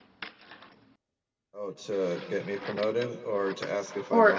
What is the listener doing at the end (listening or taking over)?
taking over